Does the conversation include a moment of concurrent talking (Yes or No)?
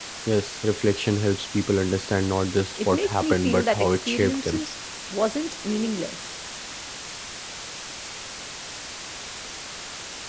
Yes